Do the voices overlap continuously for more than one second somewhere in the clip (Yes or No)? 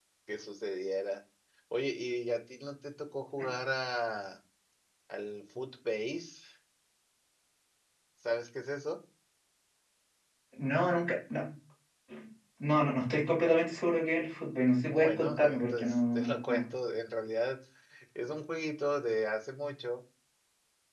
Yes